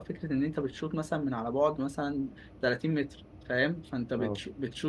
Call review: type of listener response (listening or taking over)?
listening